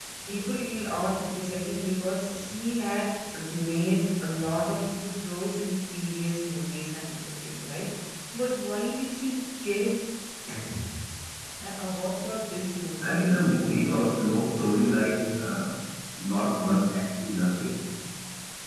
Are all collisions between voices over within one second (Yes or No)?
No